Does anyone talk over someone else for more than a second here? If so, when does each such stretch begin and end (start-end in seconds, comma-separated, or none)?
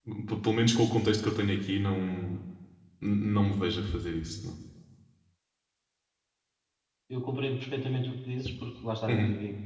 none